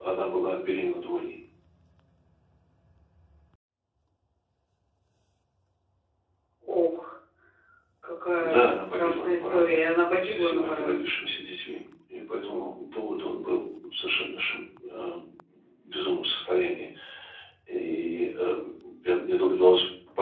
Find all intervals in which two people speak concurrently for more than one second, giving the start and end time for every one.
8.4-11.0

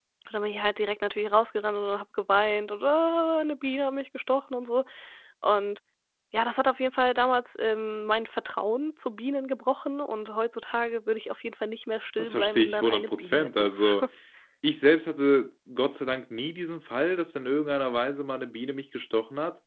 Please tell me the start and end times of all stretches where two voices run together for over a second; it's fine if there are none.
12.2-14.0

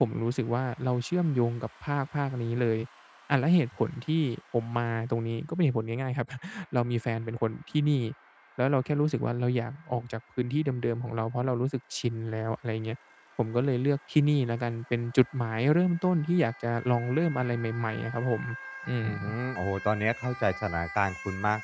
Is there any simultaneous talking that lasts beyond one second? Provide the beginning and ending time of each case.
none

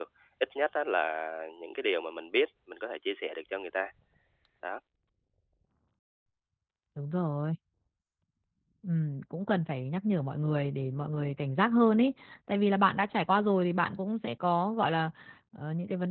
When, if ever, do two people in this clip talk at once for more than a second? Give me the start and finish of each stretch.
none

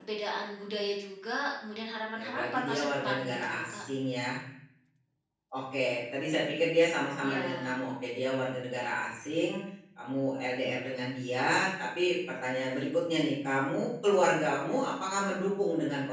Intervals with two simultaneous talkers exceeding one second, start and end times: 2.1-3.8

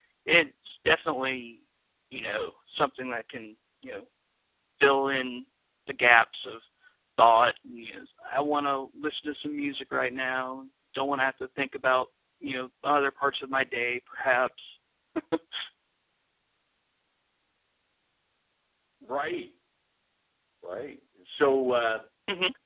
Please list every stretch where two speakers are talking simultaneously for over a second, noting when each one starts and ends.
none

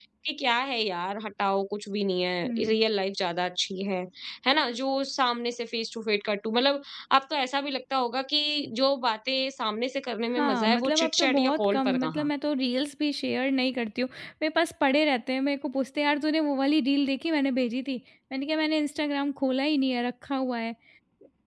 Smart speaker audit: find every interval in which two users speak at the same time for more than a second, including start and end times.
10.4-12.3

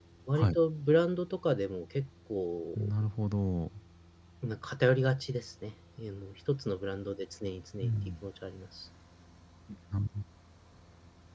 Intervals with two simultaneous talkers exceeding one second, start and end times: none

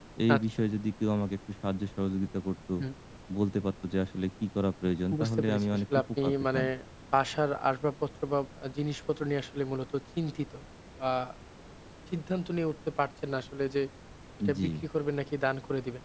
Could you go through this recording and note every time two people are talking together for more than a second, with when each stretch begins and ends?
5.2-6.6

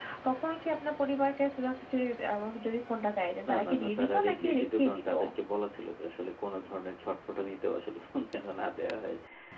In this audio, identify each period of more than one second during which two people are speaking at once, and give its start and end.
3.5-5.1

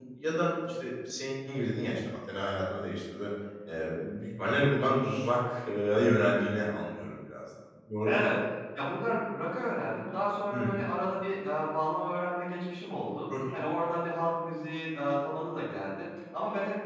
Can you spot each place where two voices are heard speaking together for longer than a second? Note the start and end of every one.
none

